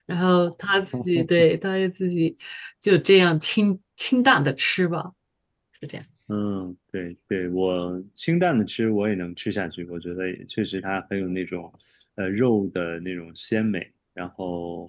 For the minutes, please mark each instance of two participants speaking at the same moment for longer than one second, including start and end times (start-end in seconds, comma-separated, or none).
none